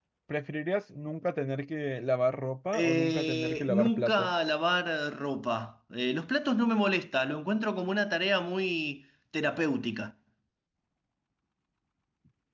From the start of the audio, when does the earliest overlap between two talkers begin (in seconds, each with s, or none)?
2.7 s